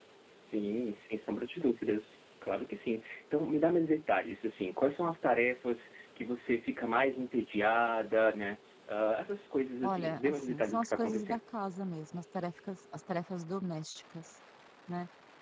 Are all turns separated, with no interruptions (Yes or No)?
No